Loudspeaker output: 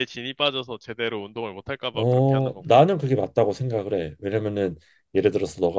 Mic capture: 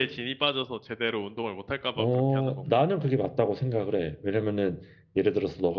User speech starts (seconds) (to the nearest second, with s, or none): none